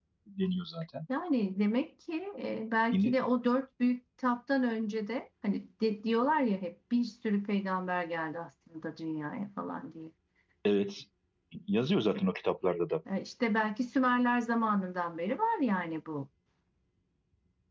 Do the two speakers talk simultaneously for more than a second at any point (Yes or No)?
No